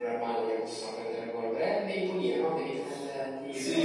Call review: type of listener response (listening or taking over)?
taking over